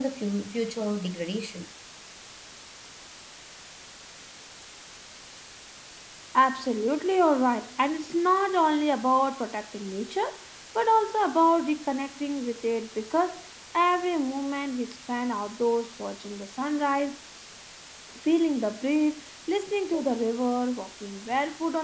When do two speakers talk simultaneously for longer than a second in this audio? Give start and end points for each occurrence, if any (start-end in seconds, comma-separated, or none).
none